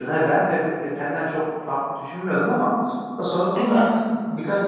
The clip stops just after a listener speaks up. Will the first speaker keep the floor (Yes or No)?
Yes